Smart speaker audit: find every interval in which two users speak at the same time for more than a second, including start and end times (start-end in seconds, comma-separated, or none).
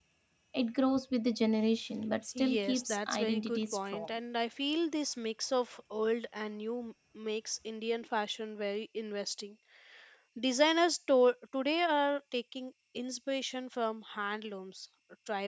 2.4-4.1